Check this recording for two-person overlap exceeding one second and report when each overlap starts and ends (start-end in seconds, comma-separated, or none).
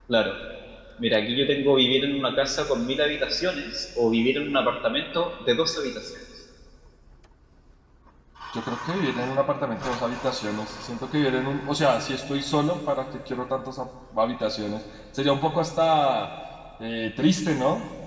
none